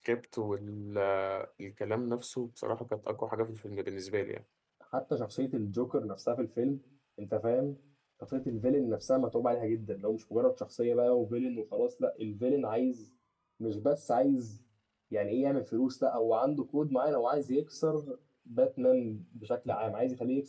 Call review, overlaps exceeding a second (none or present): none